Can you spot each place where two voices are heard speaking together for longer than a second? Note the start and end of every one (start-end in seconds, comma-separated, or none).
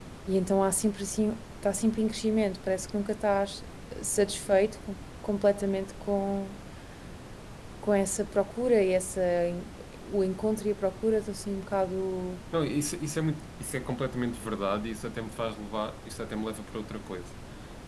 none